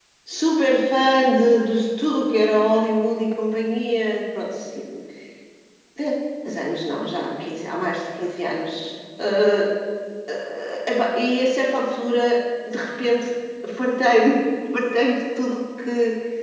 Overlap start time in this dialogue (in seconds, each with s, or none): none